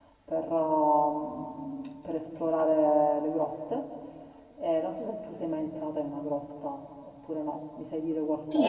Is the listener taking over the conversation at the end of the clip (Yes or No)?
Yes